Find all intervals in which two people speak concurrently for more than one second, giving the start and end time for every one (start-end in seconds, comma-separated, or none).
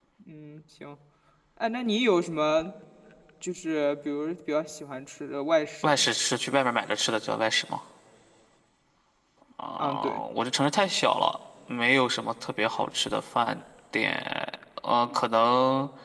none